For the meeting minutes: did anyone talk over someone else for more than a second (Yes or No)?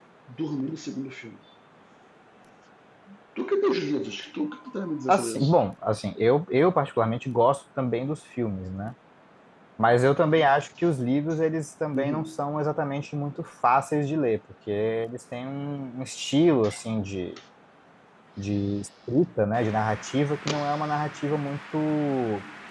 No